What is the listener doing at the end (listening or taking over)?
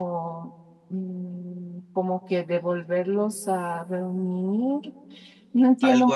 taking over